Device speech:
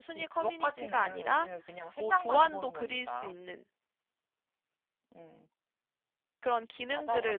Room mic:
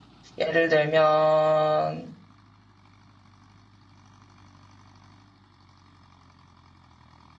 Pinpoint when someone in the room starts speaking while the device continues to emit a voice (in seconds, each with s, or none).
0.4 s